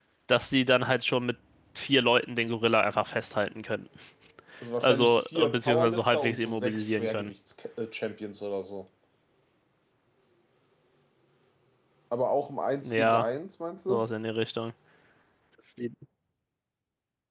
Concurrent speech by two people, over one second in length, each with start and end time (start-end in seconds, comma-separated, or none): 4.8-7.3